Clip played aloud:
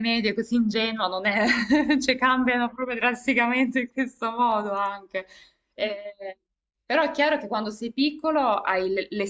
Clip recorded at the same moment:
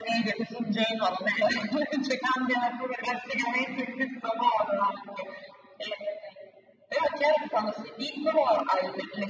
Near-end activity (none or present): none